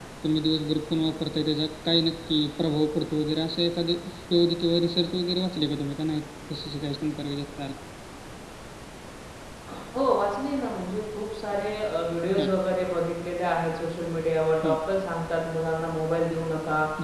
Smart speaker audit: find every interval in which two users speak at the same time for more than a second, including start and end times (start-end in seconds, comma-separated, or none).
none